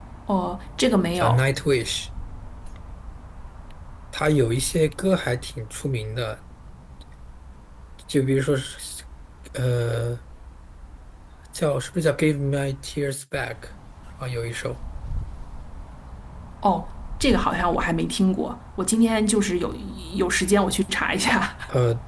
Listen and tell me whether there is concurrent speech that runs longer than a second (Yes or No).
No